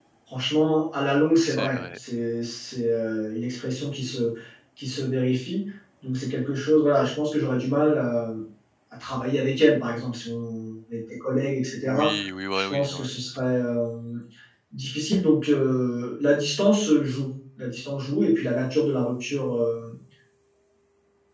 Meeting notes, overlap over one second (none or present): none